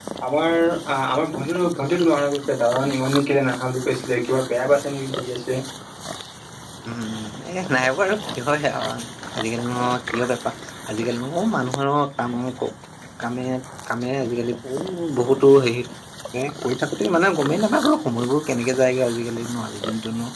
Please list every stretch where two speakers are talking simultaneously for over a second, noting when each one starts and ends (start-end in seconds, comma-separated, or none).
none